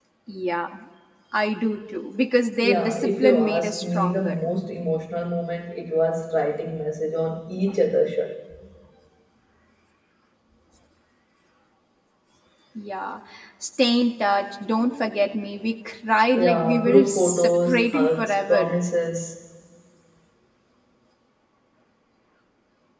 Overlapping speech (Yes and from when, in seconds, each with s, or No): Yes, from 2.6 s